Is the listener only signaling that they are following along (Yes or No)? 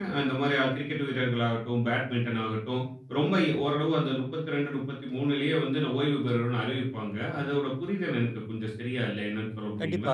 No